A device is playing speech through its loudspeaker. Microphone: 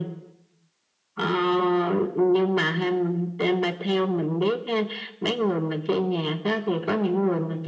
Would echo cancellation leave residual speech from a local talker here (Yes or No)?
No